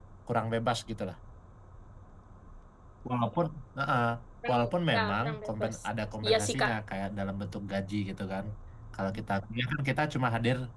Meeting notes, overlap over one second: present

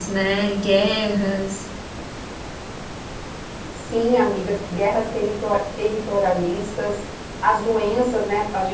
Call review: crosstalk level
none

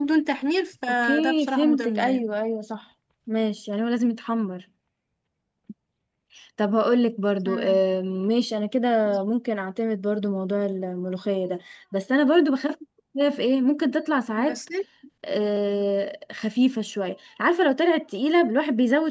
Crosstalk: present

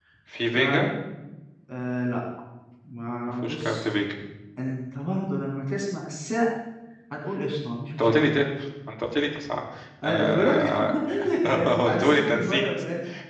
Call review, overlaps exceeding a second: present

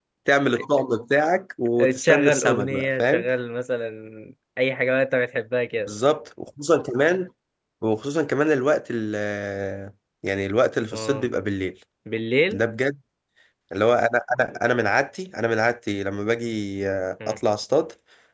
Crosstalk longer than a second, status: present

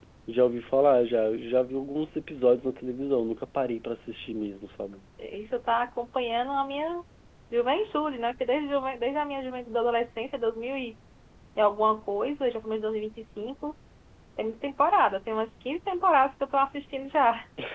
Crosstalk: none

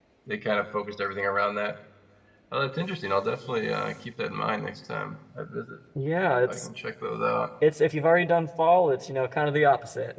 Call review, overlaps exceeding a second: none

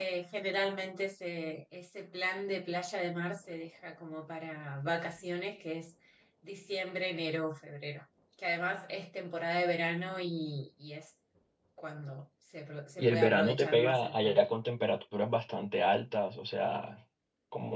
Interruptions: present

